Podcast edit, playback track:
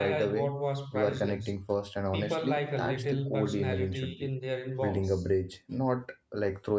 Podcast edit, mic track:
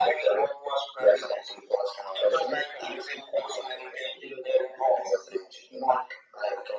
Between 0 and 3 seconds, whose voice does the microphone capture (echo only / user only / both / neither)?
echo only